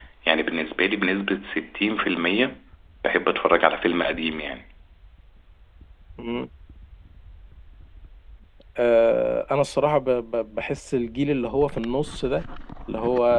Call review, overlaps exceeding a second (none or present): none